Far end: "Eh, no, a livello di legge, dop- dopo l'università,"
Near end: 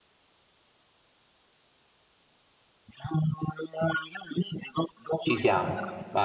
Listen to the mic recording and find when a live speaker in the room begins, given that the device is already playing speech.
5 s

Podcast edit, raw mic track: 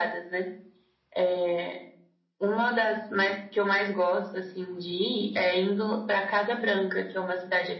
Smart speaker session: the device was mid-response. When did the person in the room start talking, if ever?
none

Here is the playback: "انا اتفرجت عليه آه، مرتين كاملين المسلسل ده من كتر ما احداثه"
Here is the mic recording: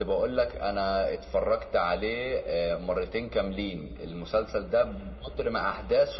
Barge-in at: none

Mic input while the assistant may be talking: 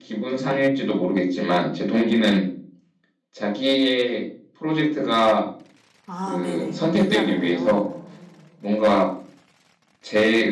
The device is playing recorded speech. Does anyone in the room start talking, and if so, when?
6 s

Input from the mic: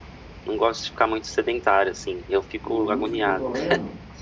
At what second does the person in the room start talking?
3 s

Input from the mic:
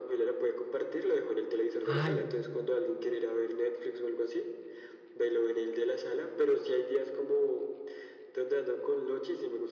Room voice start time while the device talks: 2 s

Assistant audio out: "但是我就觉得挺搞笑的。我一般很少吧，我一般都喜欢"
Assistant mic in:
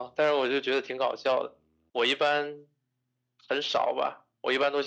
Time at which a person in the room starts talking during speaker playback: none

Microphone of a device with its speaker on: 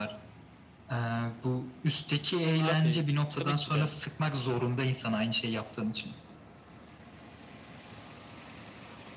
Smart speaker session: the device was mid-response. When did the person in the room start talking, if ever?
3 s

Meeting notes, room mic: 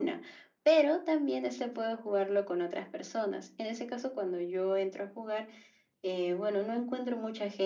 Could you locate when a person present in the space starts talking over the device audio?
none

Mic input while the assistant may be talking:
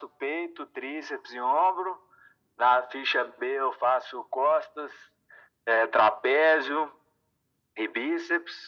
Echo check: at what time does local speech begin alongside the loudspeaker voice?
none

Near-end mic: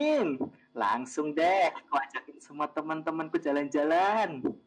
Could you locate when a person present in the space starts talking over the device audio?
none

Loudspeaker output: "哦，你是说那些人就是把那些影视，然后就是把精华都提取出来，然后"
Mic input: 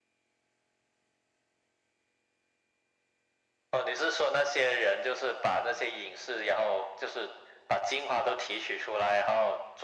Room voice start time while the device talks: none

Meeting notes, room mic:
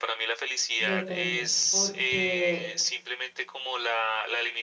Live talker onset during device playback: 1 s

